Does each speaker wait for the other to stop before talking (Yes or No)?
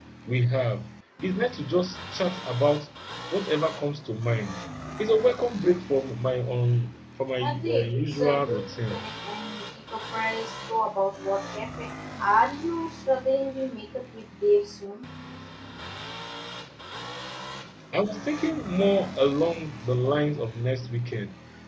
No